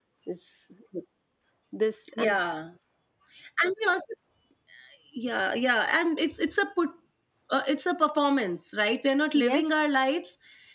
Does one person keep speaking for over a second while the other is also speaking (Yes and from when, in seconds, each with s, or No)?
No